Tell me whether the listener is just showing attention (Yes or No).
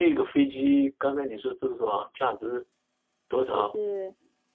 No